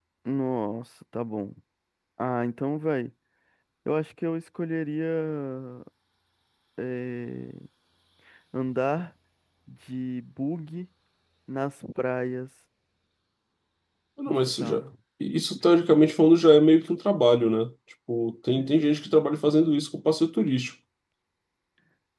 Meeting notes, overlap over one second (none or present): none